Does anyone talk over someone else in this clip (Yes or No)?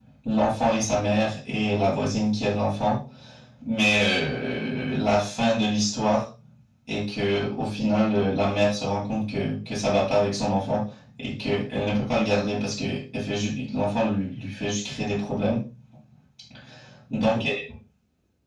No